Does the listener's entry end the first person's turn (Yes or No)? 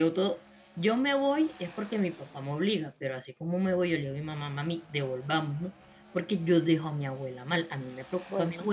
No